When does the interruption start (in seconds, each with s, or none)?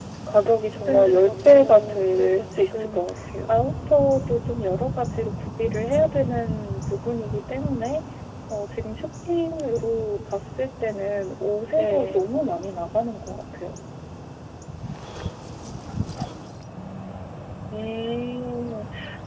0.8 s